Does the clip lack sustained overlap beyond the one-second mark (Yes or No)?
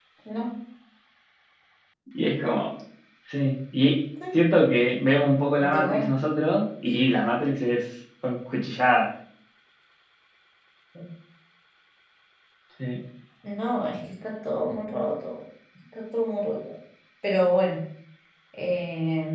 Yes